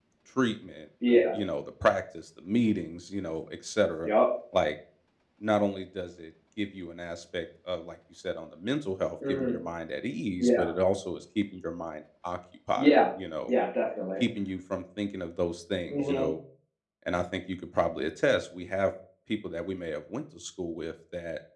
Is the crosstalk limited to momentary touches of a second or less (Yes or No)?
Yes